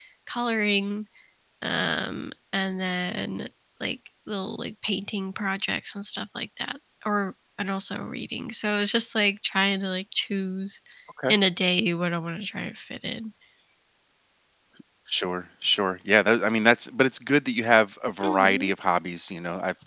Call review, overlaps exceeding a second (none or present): none